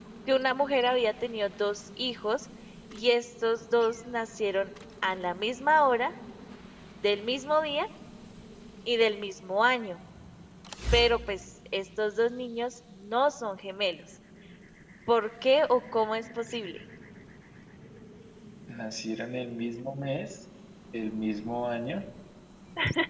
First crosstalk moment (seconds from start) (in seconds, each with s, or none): none